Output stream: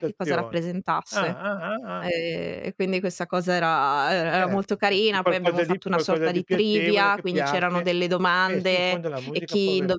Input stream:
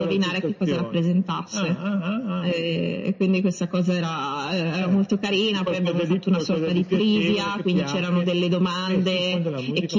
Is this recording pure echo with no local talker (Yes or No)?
Yes